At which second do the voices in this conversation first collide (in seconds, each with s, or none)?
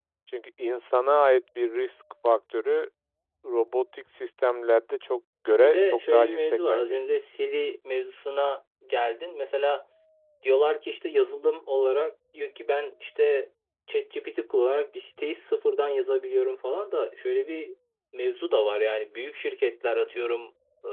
5.6 s